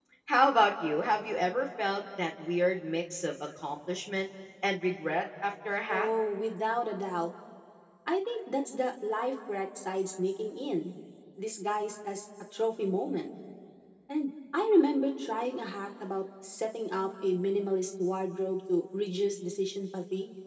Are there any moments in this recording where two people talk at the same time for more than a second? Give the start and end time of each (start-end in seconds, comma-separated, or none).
none